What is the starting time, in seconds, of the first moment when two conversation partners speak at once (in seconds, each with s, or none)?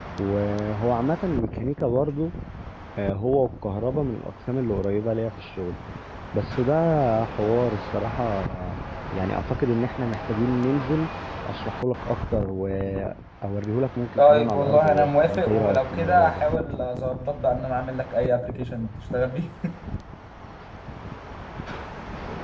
14.2 s